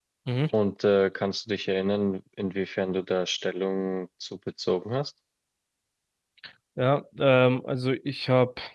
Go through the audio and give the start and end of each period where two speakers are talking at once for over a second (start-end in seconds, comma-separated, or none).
none